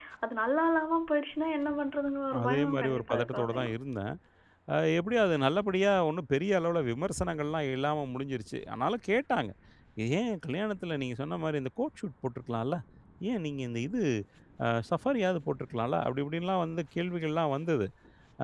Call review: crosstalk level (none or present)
present